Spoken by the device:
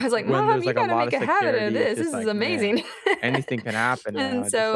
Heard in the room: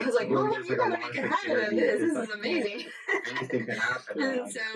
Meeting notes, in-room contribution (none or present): none